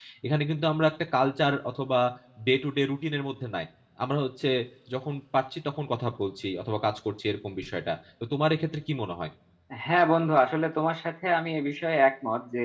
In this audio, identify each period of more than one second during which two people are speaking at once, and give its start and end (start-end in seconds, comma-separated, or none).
none